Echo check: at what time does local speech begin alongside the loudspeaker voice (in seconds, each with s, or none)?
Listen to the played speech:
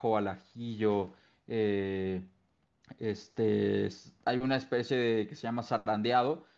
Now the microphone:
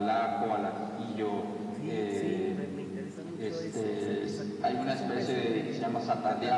1.7 s